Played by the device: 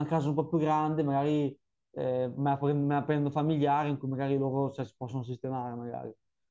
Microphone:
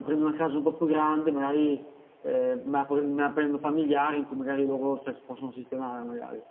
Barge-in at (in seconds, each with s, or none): none